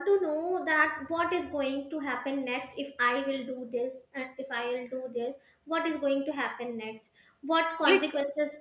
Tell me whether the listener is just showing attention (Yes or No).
Yes